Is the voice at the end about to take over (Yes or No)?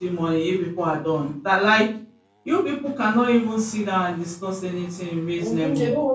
Yes